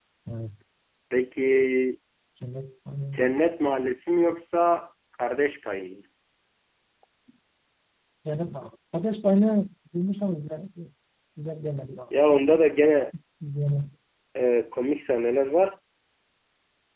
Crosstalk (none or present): none